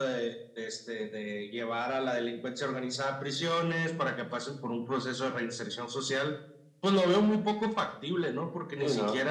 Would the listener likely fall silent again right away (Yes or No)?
Yes